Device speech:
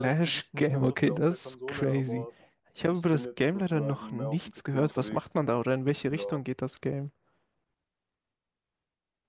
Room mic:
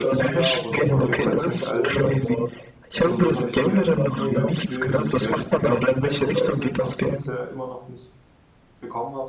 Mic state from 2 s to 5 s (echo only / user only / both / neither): both